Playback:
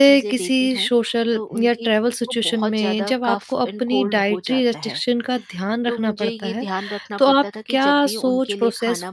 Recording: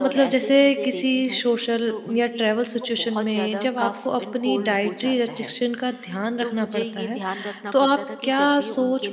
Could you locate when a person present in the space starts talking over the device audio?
none

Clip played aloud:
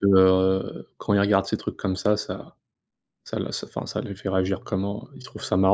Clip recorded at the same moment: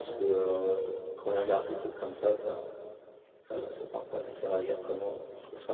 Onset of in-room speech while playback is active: none

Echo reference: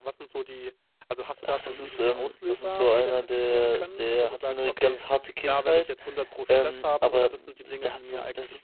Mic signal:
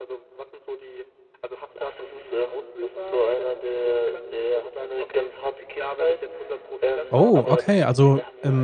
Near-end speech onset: 7.1 s

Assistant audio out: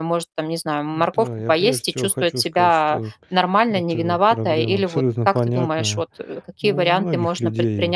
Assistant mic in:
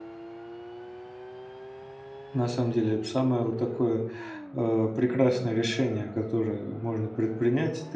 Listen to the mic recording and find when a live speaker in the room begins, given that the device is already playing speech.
2.3 s

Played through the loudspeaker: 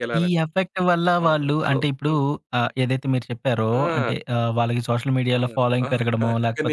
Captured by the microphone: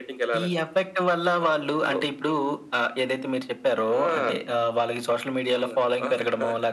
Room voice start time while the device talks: none

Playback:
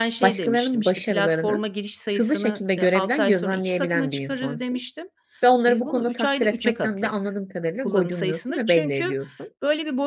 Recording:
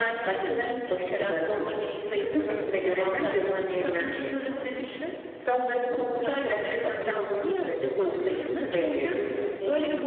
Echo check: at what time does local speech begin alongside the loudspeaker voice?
7.0 s

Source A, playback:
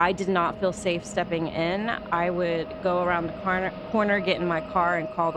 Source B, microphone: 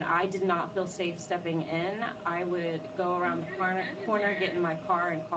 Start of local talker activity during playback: 3.2 s

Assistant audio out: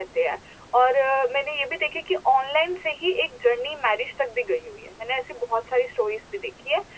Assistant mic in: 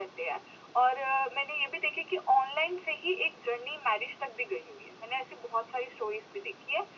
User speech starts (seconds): none

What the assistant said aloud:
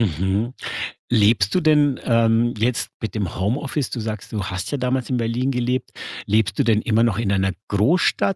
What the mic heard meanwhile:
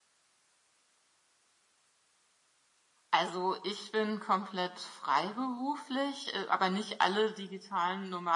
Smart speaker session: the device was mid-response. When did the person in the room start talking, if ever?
3.1 s

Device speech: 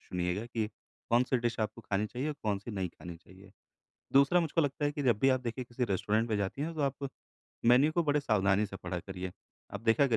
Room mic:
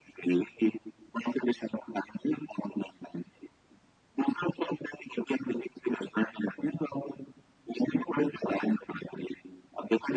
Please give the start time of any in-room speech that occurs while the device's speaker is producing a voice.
none

